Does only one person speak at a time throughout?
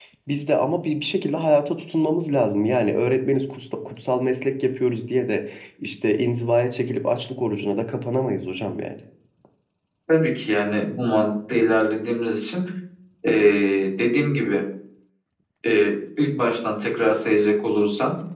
Yes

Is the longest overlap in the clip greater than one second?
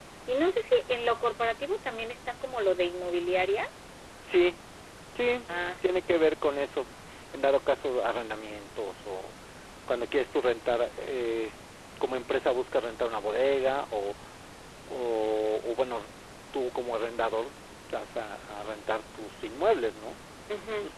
No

